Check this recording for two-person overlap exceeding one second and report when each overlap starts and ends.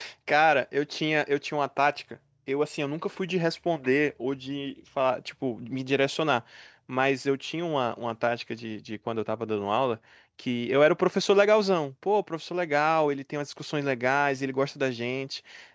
none

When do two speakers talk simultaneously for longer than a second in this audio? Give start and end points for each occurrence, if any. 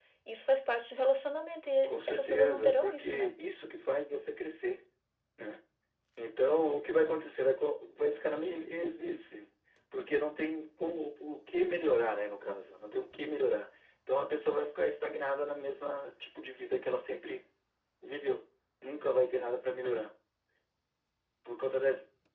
1.9-3.3

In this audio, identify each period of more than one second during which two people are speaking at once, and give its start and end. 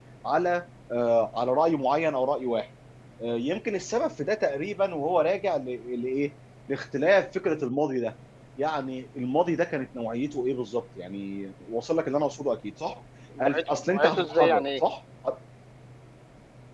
13.4-14.6

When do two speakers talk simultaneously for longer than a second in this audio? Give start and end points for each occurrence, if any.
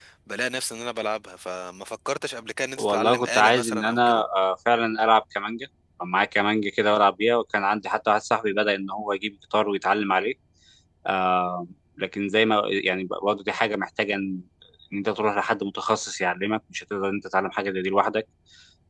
2.8-4.2

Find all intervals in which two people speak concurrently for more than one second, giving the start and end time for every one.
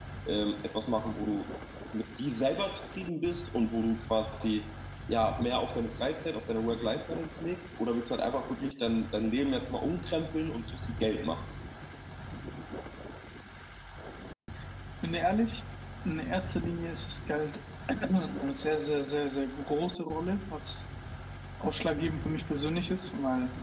none

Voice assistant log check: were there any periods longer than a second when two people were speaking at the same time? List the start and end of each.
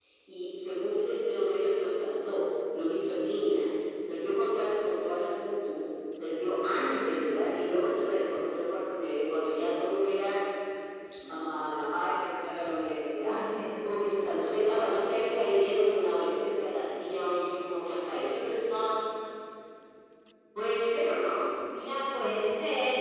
none

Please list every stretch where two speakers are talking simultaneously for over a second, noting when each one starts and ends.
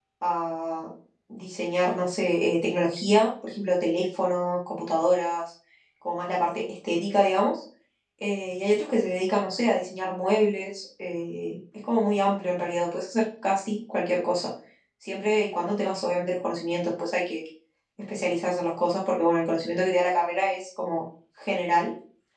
none

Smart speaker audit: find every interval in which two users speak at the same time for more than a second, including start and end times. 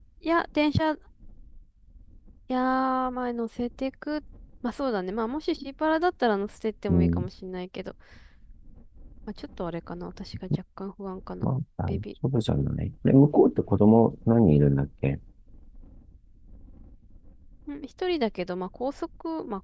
none

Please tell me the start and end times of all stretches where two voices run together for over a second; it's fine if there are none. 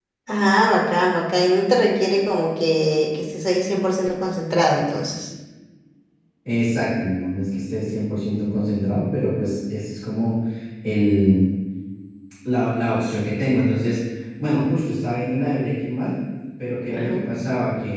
none

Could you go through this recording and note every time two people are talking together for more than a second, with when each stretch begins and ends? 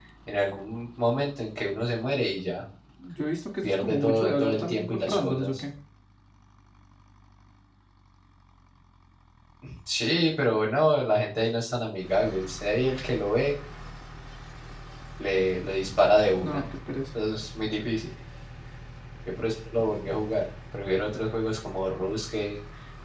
3.6-5.6

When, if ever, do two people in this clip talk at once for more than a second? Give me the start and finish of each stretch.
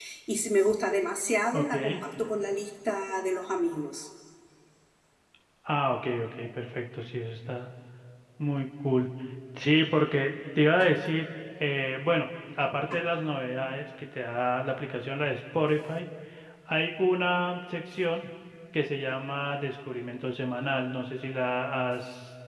none

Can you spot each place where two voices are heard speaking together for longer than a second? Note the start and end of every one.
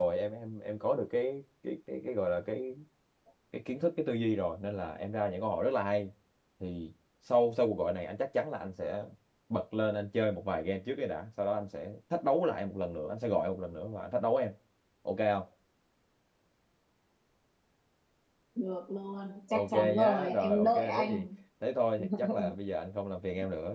19.5-21.2

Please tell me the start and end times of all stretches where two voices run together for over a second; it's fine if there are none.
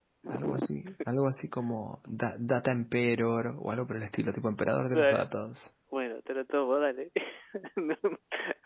none

